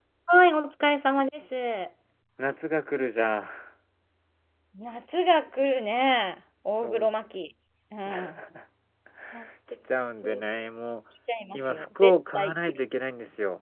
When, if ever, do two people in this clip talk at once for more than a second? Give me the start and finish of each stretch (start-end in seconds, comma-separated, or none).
11.5-12.8